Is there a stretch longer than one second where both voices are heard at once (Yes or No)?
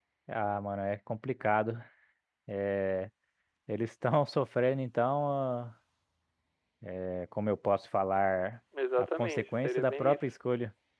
Yes